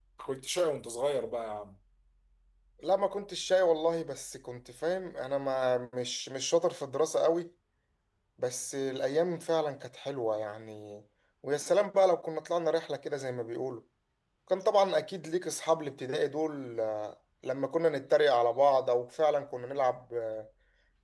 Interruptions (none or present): none